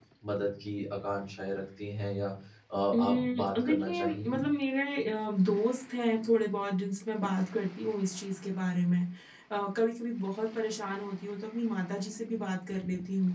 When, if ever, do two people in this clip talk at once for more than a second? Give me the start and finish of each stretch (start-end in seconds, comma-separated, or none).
2.9-4.4